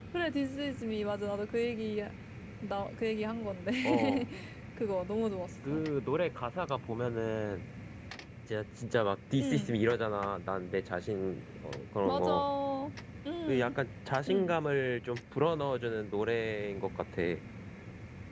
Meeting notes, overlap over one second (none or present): none